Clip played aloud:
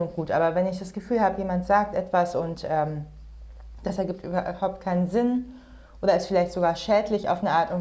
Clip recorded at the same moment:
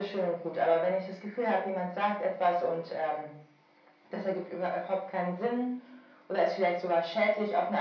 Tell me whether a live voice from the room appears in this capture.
No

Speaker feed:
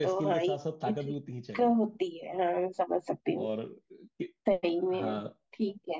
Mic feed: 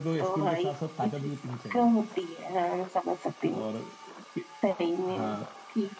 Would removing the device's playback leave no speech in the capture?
Yes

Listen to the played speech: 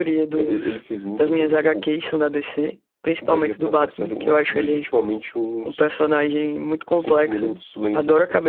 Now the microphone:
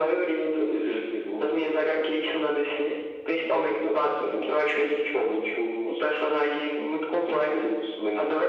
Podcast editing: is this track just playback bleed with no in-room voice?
Yes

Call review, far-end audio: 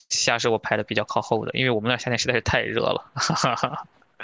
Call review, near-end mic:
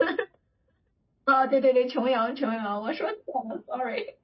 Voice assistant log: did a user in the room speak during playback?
Yes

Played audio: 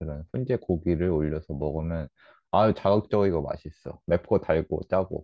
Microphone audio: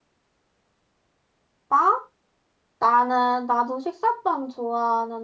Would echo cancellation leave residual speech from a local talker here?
Yes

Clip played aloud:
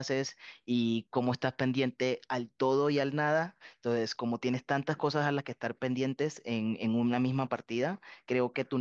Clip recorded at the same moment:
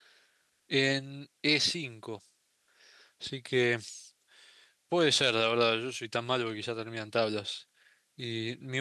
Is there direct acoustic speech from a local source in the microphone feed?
Yes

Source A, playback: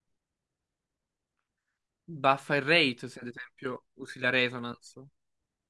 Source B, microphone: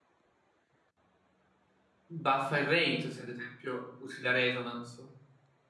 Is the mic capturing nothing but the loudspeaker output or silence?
Yes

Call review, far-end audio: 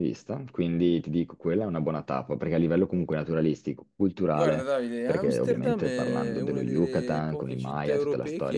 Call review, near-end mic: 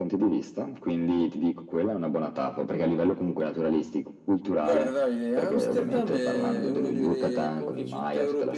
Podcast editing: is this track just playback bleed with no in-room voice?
Yes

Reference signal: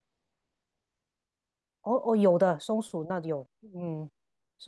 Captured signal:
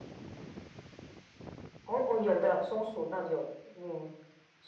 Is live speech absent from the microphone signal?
Yes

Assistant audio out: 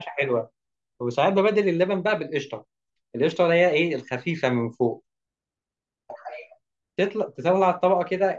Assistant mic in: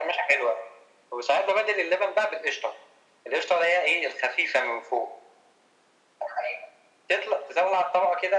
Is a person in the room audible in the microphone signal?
No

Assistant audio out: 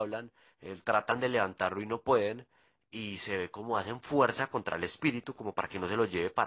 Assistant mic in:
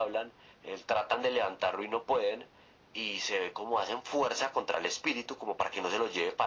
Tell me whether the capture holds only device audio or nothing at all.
Yes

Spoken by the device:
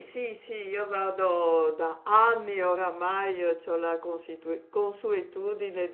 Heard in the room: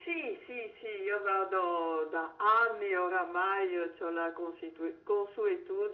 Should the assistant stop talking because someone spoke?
No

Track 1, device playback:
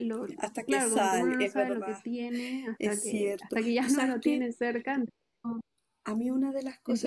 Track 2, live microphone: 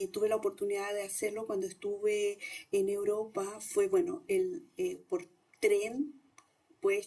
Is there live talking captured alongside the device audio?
Yes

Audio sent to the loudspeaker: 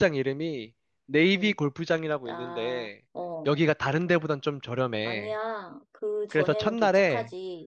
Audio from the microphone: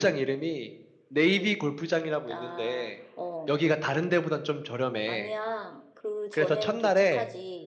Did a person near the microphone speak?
No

